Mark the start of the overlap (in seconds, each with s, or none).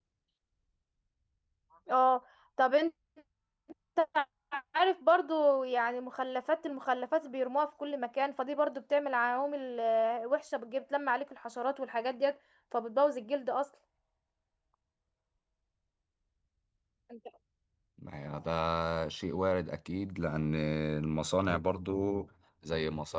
none